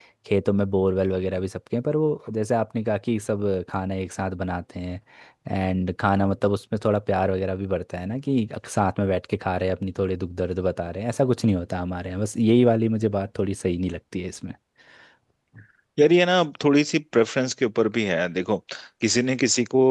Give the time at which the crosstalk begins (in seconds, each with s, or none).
none